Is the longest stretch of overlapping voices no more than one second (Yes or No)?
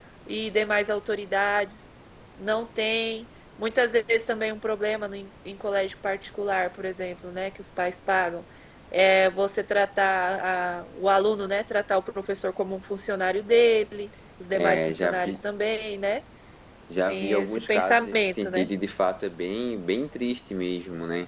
No